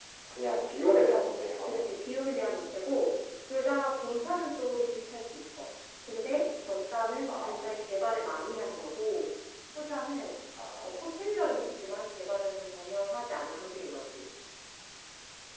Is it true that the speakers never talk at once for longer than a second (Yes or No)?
Yes